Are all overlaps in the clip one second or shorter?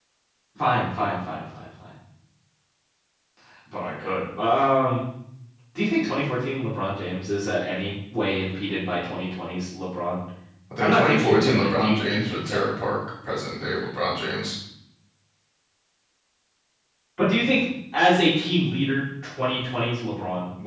No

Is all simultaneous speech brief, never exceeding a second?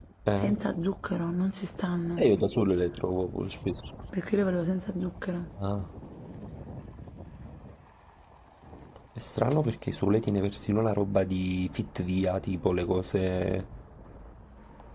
Yes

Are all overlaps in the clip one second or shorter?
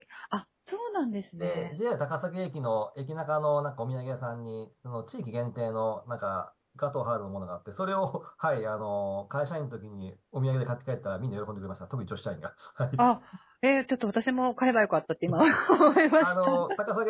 Yes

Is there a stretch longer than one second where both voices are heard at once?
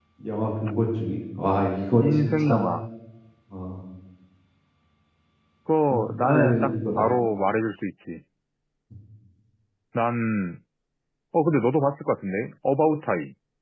Yes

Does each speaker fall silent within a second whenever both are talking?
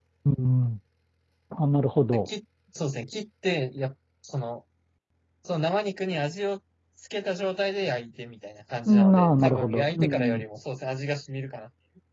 No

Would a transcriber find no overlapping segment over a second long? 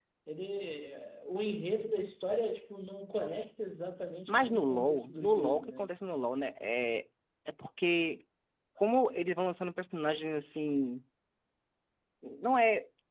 No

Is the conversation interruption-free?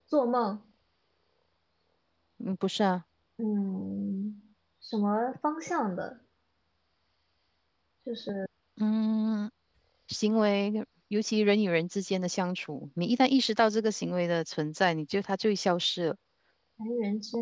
Yes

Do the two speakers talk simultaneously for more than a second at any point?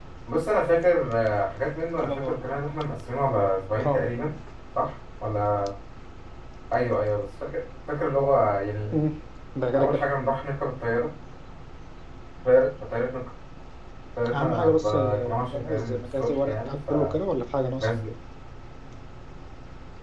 Yes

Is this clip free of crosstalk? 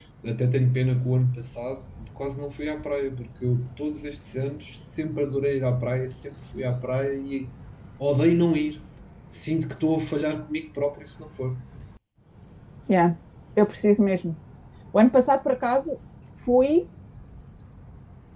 Yes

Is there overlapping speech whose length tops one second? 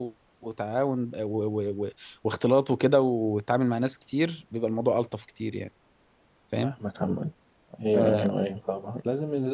No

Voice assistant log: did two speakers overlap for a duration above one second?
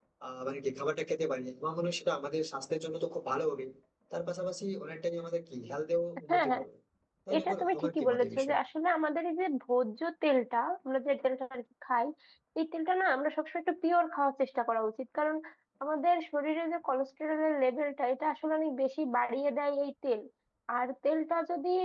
Yes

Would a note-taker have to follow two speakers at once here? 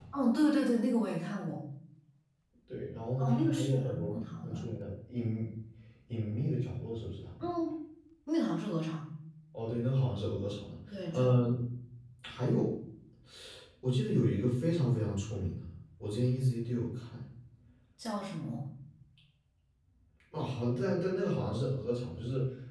Yes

